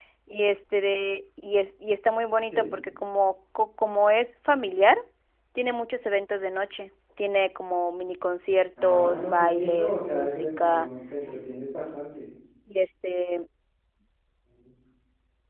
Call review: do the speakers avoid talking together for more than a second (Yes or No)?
No